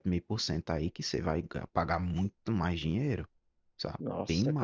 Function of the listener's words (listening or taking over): taking over